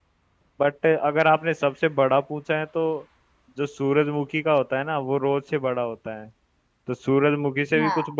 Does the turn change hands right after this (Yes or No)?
No